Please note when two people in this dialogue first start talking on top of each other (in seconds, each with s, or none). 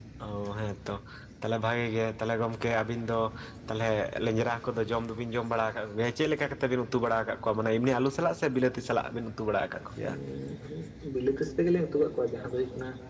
none